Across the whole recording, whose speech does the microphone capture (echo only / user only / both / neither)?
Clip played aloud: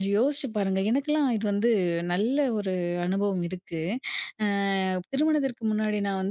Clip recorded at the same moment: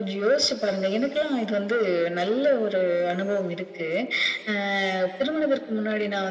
echo only